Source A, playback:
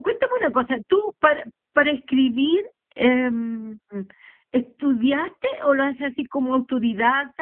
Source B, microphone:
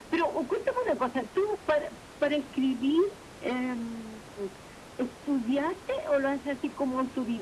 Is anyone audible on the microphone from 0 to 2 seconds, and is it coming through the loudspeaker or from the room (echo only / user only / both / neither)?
echo only